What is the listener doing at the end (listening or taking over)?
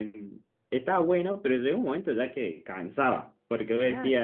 listening